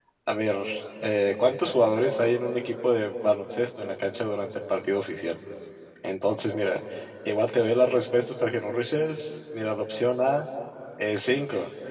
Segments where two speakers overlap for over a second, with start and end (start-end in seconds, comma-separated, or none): none